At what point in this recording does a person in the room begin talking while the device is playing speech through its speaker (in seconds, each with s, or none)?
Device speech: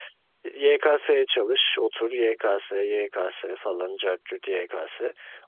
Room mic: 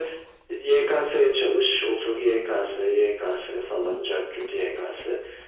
none